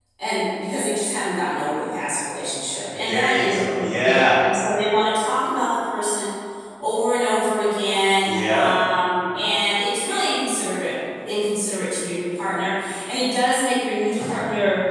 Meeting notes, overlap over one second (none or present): present